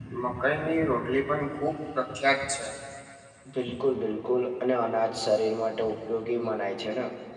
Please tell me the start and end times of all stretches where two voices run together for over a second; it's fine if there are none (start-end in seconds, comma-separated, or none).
none